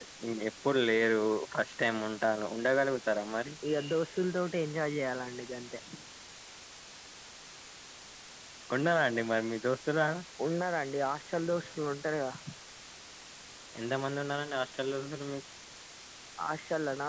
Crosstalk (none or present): none